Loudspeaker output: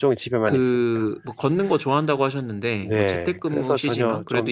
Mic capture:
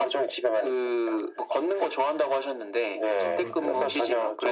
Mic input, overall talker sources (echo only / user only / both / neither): both